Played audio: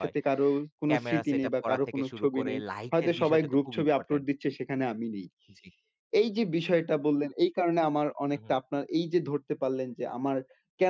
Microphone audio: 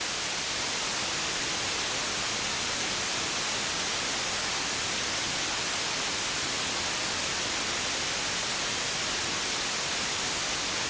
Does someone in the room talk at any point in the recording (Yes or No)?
No